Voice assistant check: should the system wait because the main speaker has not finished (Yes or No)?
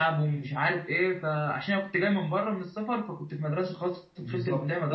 No